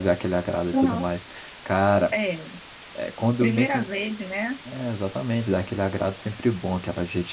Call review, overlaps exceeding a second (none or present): none